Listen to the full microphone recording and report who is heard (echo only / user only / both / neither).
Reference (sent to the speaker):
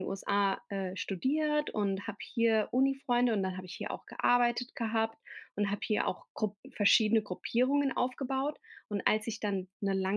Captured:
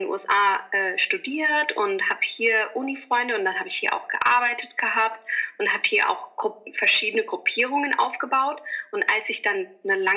echo only